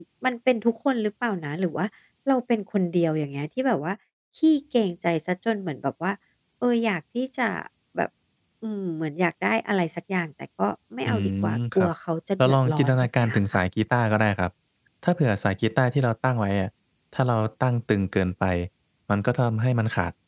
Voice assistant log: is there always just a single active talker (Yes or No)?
No